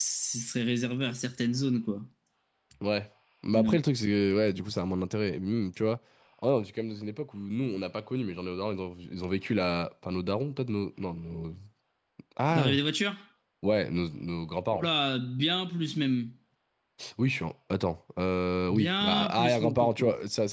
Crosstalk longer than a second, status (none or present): present